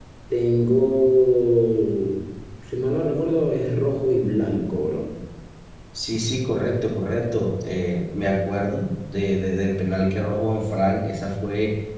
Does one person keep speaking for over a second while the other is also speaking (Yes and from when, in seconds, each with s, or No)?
No